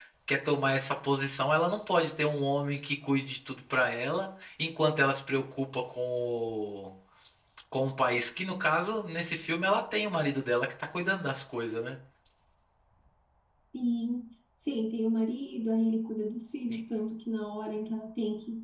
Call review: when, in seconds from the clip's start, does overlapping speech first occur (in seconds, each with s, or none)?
none